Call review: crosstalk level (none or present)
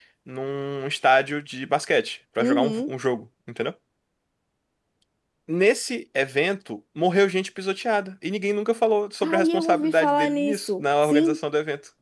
present